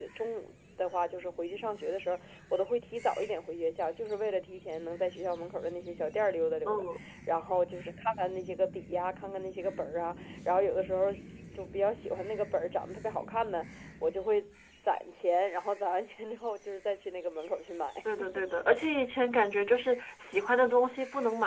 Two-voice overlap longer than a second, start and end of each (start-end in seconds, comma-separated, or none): none